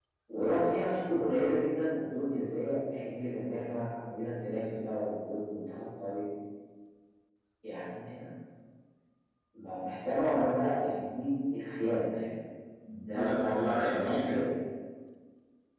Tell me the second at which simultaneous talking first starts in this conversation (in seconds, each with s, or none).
13.1 s